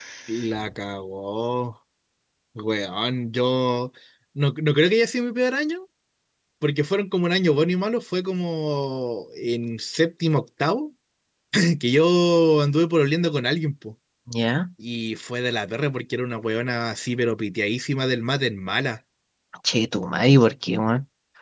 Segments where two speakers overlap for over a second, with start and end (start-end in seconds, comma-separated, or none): none